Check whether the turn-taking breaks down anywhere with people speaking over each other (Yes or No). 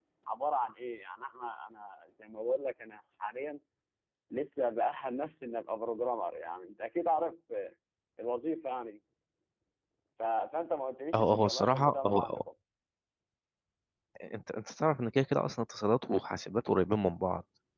Yes